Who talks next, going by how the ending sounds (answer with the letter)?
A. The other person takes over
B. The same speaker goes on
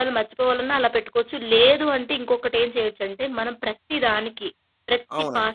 B